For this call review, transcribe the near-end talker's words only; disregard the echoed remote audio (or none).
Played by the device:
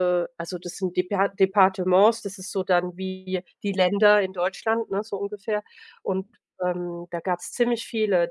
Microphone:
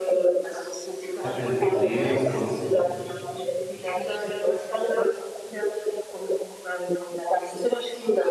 gar kein Problem. Und